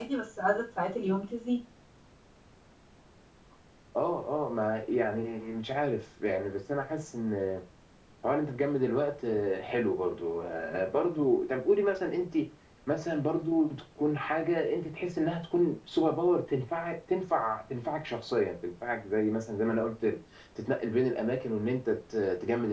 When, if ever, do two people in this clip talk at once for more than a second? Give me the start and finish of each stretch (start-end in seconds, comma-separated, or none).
none